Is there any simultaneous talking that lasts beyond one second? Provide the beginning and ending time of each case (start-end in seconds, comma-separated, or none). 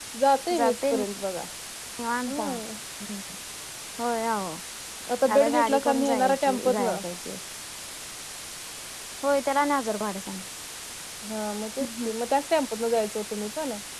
5.4-7.0